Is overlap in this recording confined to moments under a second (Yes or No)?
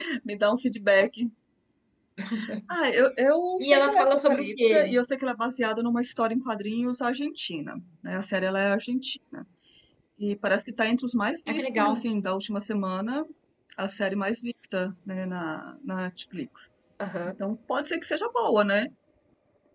No